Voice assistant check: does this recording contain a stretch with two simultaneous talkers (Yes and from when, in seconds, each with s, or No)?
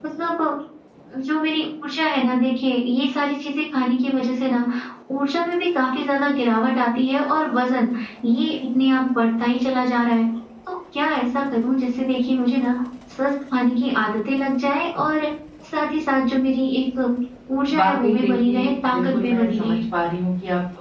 Yes, from 17.8 s